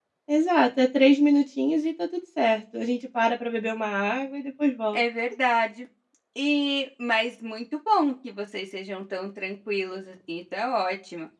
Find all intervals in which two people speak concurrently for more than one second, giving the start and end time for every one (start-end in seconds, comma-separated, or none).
none